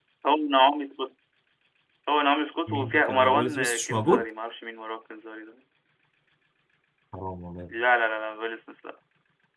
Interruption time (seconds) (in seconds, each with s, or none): 2.7 s